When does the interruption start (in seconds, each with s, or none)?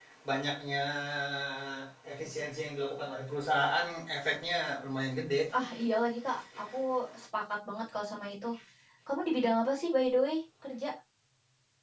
none